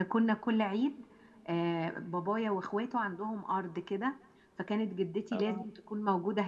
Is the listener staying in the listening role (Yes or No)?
Yes